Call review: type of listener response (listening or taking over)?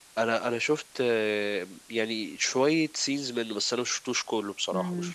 taking over